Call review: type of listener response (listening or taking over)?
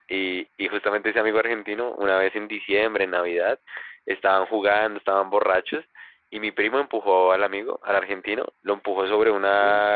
listening